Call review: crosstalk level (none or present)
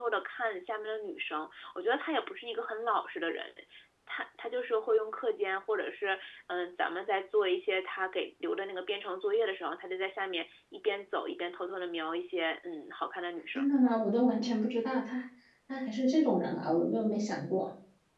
none